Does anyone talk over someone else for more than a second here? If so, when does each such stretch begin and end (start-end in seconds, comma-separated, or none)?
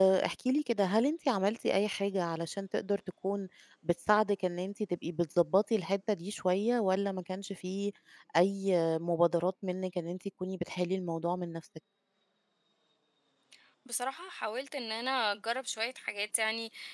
none